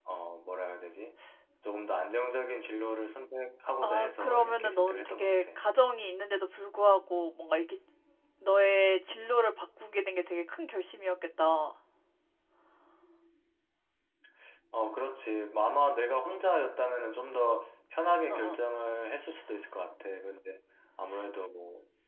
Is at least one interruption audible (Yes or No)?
Yes